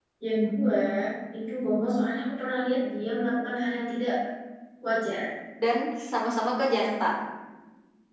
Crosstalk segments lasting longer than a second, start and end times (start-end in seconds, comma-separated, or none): none